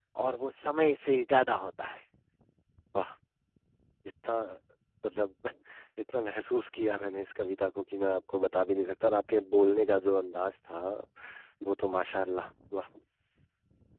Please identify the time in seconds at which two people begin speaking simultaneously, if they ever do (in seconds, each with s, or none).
none